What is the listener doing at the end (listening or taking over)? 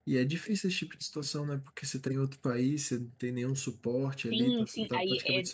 taking over